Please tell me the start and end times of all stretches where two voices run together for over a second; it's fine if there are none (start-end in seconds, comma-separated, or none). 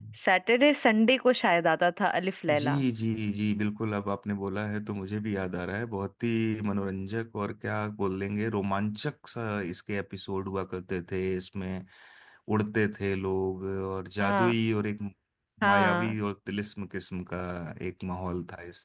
none